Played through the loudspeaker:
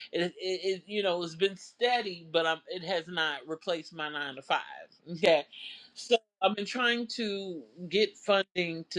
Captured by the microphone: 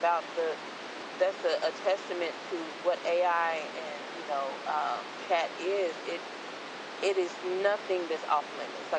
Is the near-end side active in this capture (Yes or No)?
Yes